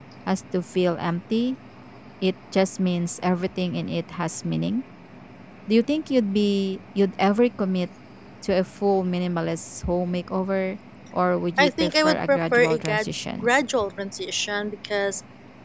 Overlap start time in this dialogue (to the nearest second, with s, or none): 12 s